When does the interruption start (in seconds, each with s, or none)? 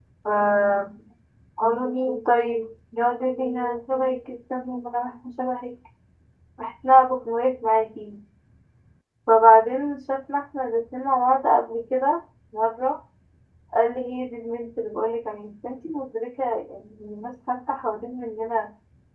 none